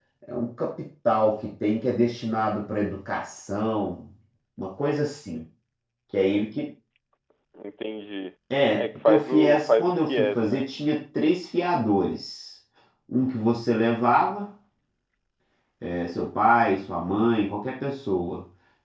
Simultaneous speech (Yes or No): Yes